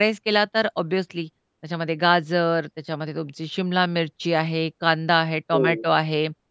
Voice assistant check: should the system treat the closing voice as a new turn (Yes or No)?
No